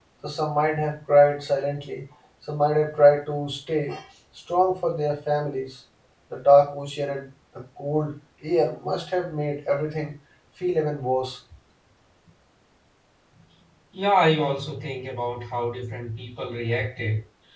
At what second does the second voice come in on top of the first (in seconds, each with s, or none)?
none